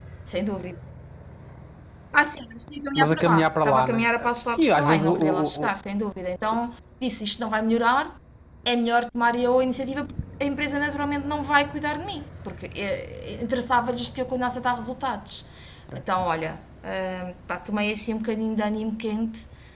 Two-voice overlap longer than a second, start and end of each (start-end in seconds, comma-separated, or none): 3.0-5.7